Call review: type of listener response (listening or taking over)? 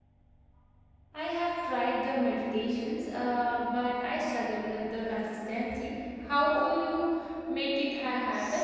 taking over